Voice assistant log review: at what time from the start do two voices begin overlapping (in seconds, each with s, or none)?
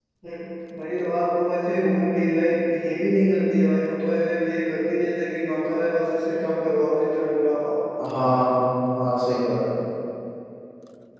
none